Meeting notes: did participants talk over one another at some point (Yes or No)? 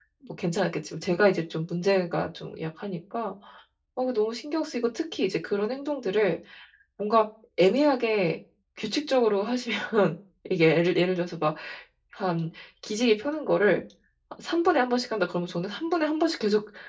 No